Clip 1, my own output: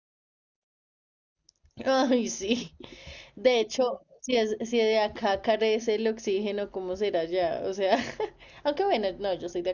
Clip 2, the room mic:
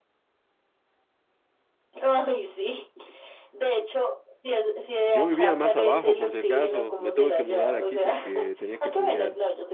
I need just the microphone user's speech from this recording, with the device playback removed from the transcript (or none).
Yo vivía más abajo, por si acaso. Me tuve que mudar aquí porque tenía que estudiar.